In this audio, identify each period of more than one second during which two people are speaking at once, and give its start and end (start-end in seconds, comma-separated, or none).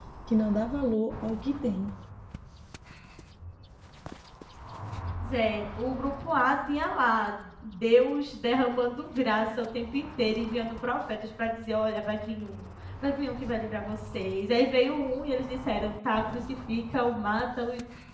none